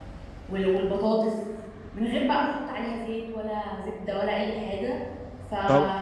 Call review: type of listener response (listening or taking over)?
taking over